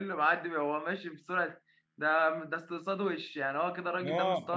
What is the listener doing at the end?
taking over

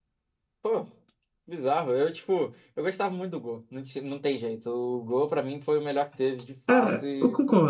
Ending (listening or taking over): taking over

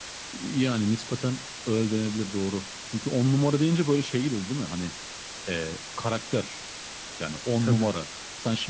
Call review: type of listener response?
listening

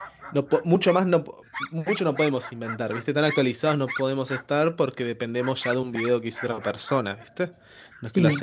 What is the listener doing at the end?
listening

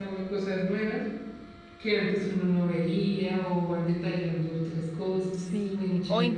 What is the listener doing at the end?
taking over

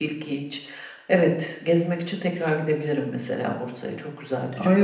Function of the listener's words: taking over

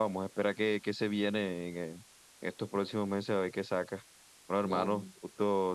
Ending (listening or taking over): listening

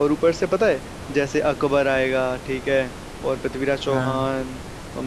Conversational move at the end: listening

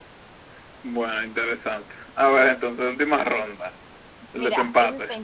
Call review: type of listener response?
taking over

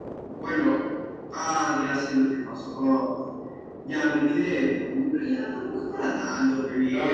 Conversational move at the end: taking over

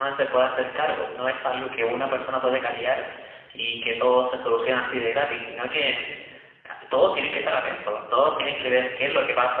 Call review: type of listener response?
listening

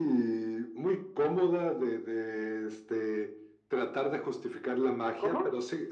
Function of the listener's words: listening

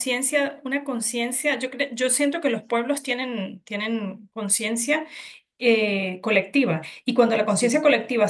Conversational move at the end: listening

